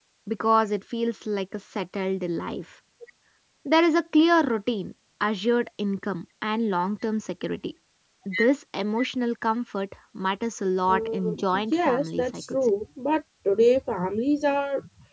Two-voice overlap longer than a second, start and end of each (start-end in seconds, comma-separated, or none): 10.9-12.6